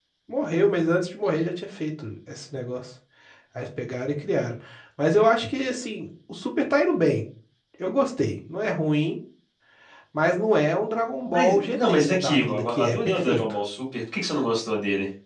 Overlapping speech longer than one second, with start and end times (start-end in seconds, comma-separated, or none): 11.2-13.4